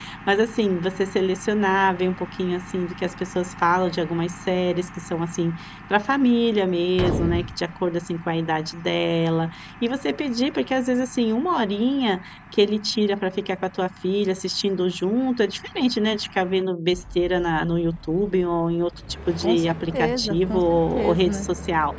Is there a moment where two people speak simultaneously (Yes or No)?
Yes